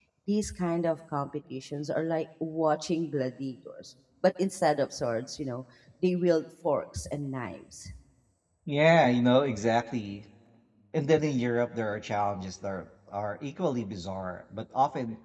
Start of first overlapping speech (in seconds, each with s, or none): none